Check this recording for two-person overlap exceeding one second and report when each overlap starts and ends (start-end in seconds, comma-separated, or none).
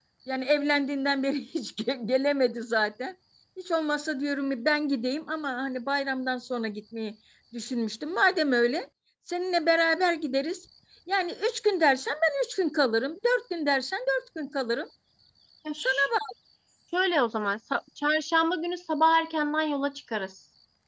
none